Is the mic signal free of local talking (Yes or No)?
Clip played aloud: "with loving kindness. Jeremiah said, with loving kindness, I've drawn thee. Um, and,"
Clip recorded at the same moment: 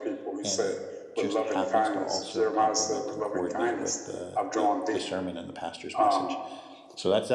No